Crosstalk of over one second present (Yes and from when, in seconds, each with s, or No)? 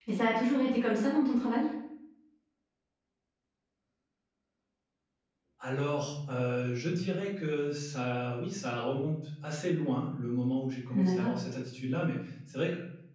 No